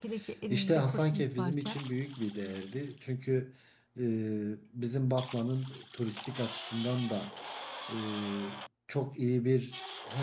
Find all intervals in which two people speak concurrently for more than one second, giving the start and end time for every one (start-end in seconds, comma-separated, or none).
0.5-1.8